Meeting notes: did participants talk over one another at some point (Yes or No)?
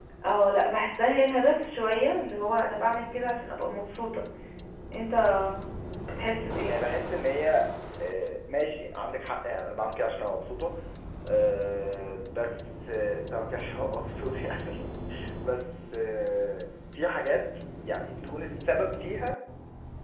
No